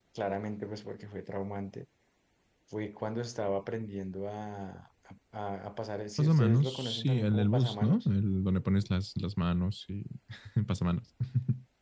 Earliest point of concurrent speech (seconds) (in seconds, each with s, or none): 6.2 s